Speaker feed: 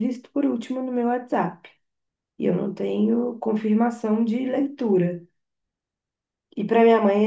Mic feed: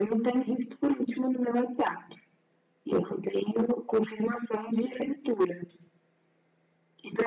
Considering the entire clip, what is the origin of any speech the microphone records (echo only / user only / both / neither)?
echo only